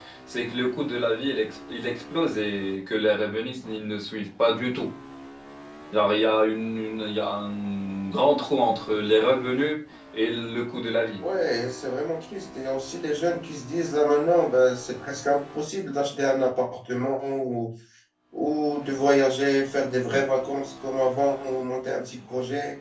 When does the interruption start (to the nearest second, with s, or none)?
none